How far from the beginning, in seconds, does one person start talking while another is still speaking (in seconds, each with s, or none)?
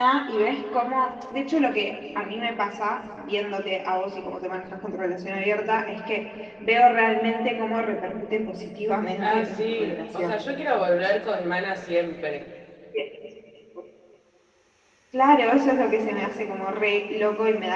9.2 s